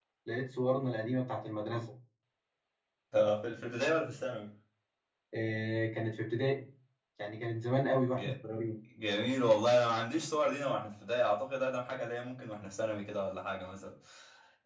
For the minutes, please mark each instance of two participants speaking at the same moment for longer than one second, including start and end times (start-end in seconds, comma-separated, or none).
none